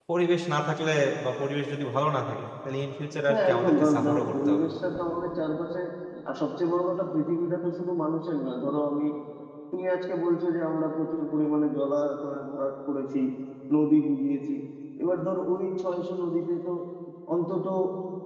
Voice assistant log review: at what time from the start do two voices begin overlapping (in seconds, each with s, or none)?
3.3 s